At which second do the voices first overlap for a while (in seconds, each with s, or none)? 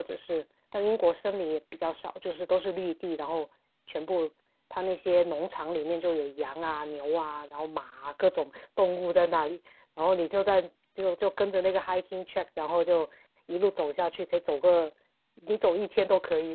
none